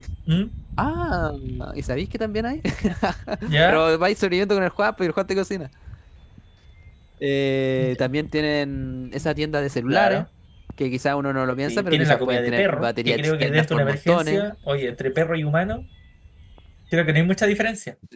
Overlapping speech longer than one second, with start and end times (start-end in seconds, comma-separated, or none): 11.7-14.4